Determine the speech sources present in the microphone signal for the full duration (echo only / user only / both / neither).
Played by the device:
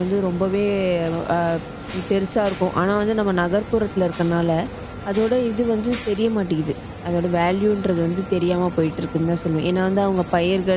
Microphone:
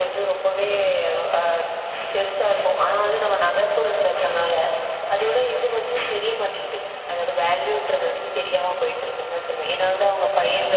echo only